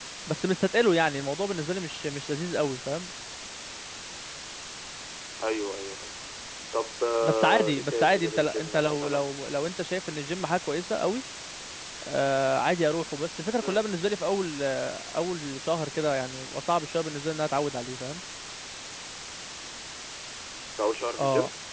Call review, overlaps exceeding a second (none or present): present